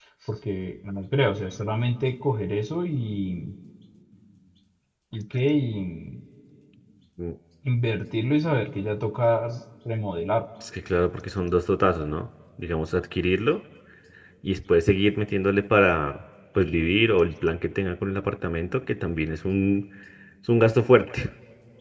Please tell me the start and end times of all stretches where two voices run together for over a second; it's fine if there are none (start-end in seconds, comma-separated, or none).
none